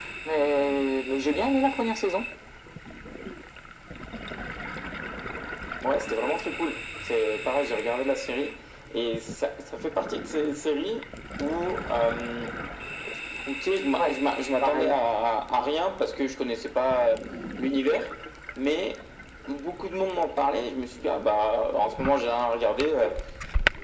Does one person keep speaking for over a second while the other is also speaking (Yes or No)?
No